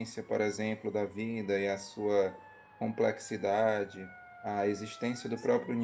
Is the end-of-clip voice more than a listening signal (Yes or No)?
No